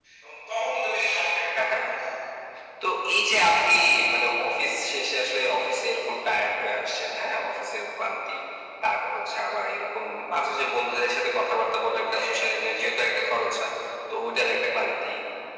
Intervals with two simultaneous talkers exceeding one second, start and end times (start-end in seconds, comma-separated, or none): none